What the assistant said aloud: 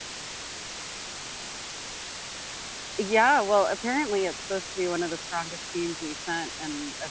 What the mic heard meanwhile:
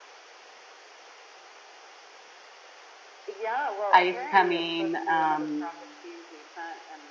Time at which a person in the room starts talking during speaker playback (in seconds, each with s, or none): 3.9 s